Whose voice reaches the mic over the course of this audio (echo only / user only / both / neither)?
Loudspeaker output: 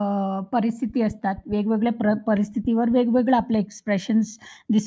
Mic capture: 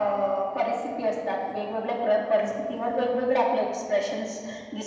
echo only